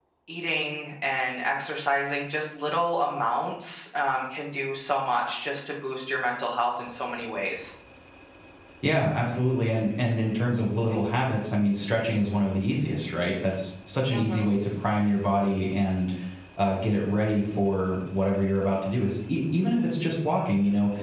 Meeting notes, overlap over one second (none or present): none